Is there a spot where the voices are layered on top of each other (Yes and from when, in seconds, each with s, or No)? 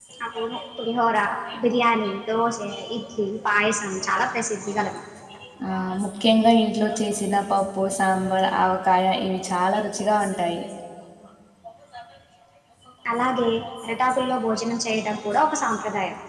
No